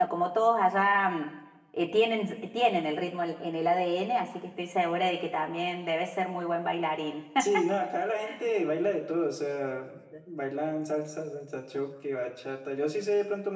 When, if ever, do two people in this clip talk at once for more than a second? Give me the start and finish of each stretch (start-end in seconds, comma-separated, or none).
none